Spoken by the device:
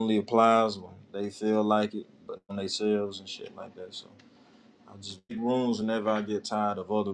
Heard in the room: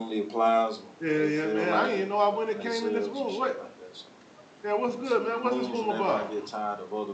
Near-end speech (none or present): present